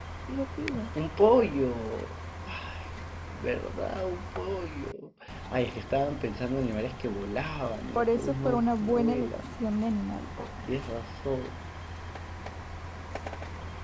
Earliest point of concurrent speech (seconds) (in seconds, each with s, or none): 8.0 s